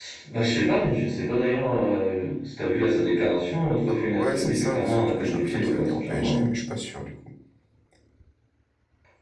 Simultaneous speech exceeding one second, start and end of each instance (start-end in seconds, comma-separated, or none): 3.9-6.5